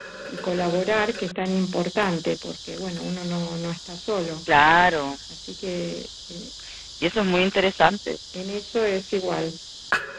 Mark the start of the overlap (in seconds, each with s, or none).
none